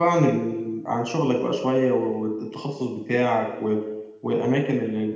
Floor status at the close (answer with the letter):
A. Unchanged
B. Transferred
A